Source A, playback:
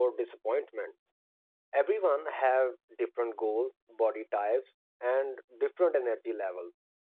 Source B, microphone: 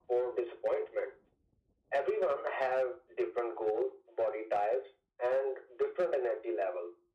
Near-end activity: none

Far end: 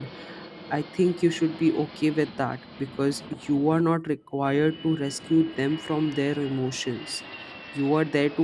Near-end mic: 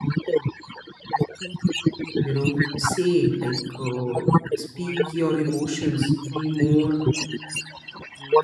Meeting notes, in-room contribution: present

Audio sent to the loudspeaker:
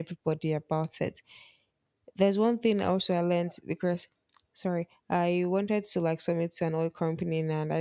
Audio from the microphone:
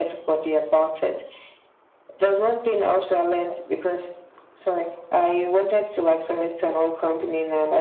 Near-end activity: none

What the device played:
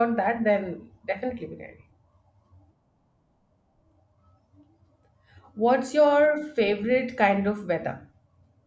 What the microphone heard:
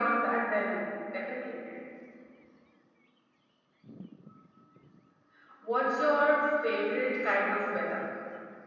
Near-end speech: none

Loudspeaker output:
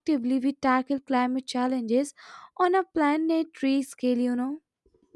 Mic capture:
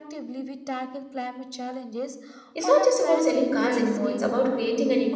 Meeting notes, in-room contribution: present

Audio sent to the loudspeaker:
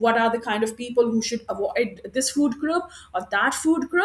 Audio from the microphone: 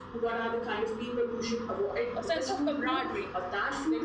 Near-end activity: present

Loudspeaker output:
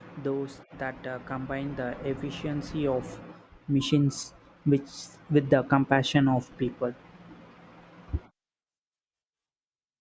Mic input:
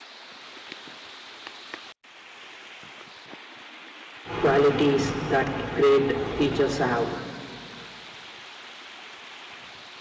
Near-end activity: present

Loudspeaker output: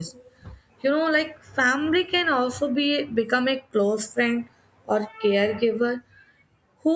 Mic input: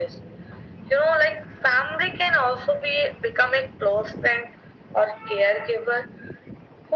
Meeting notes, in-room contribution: none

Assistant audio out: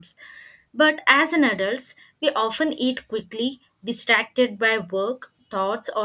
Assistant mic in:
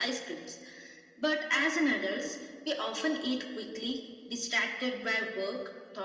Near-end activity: none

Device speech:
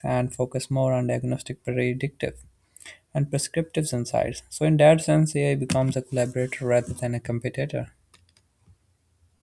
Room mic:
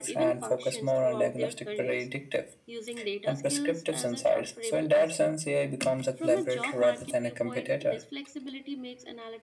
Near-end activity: present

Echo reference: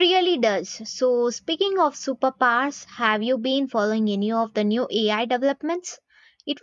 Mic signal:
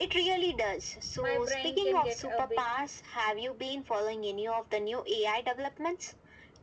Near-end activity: present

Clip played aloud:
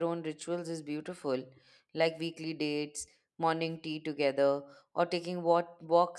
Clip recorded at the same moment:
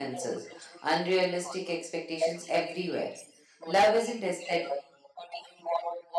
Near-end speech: present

